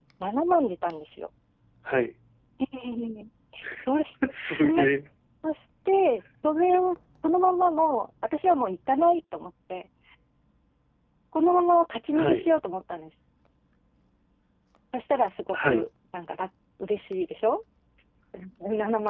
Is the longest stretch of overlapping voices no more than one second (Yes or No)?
Yes